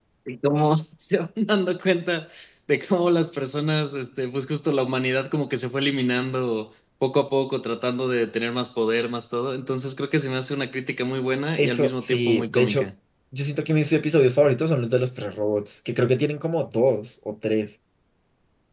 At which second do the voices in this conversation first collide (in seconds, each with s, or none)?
11.6 s